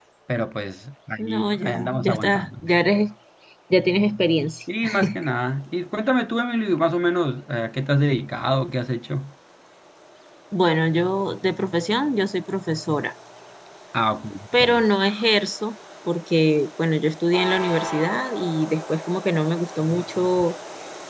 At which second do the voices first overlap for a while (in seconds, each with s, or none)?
1.2 s